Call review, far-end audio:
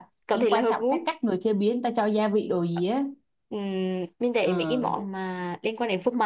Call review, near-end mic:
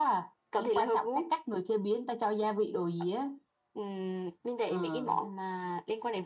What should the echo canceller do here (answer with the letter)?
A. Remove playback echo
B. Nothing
A